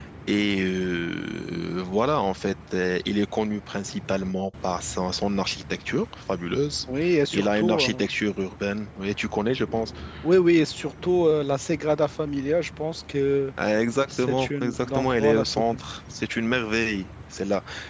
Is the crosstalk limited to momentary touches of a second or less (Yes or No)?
No